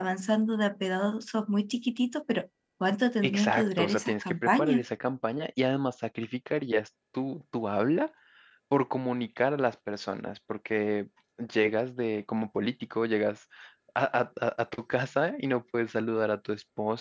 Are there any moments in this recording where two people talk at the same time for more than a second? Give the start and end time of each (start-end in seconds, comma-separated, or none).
3.2-4.8